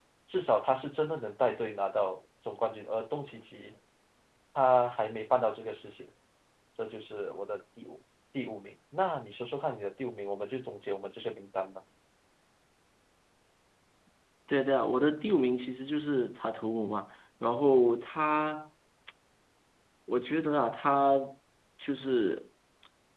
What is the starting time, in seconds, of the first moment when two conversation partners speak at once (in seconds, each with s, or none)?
none